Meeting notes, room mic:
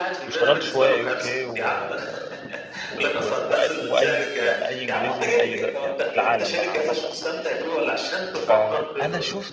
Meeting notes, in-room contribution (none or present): present